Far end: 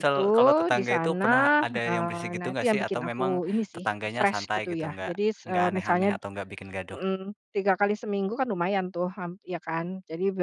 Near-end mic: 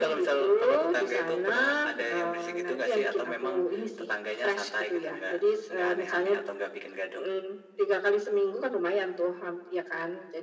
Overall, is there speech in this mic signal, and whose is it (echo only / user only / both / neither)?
echo only